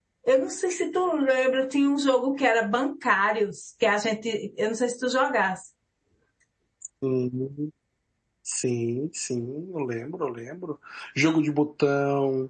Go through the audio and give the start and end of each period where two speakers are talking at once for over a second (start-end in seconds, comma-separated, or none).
none